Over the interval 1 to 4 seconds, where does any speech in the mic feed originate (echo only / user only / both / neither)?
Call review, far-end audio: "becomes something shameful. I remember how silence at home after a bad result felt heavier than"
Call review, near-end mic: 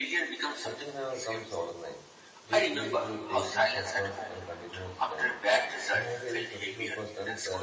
both